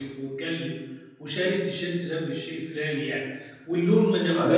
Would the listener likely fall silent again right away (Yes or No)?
No